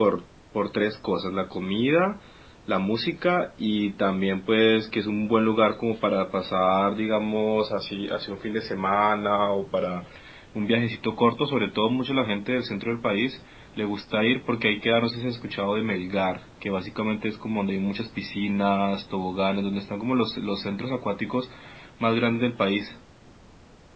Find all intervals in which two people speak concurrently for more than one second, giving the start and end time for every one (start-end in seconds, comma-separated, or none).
none